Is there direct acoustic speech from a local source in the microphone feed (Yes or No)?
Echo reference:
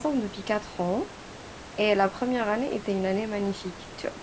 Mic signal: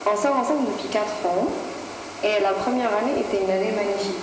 No